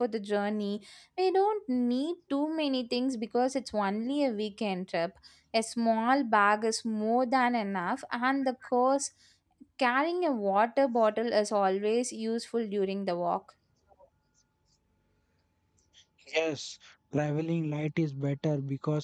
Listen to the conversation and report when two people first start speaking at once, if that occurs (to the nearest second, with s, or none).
none